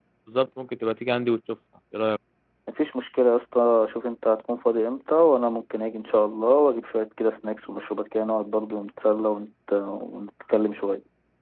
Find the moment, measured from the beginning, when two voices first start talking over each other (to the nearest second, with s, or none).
none